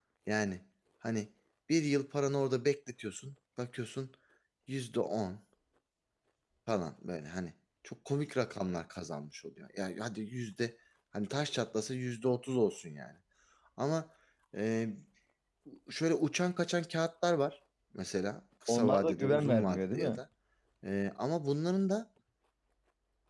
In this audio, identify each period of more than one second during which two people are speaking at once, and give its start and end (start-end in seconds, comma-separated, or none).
18.7-20.1